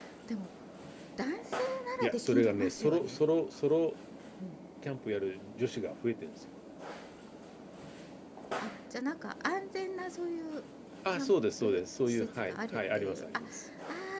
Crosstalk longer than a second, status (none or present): present